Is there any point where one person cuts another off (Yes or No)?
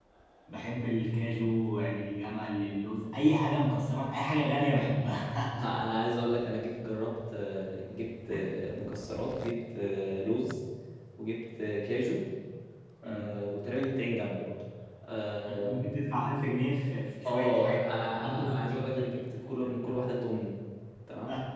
Yes